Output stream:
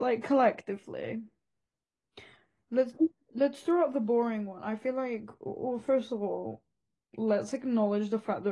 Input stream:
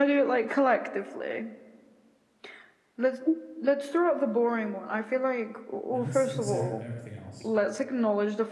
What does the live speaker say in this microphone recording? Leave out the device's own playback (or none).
and let's consider everything else.